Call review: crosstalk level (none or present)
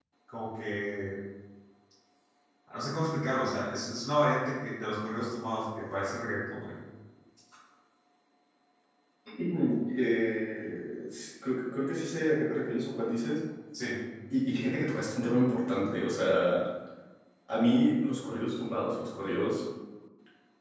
none